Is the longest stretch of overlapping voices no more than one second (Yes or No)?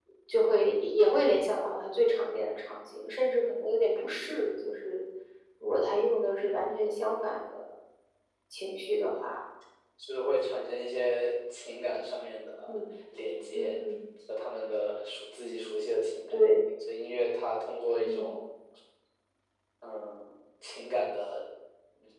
Yes